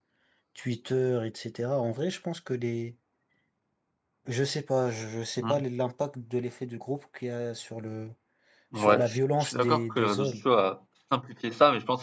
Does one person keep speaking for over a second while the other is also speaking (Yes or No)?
Yes